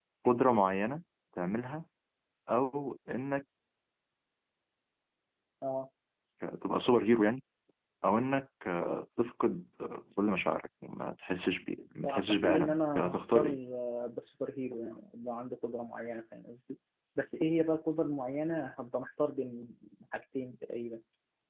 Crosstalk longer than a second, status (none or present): present